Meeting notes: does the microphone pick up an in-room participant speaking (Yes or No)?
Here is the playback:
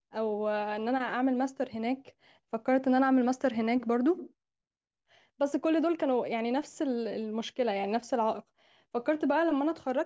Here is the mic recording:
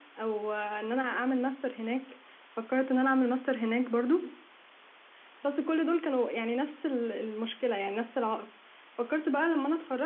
No